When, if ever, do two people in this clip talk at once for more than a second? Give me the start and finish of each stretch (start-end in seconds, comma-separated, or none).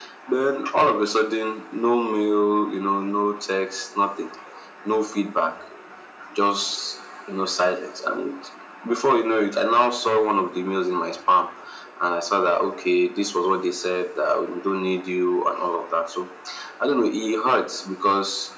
none